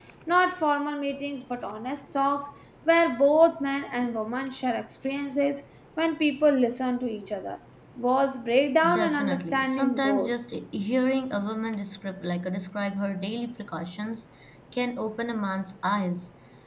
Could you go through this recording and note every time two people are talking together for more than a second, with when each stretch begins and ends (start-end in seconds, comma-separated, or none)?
8.9-10.3